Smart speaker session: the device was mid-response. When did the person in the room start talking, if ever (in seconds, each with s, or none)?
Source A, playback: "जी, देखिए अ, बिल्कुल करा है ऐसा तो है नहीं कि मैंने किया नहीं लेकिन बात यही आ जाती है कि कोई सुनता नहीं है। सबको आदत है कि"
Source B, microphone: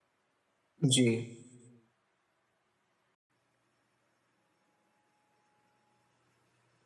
0.8 s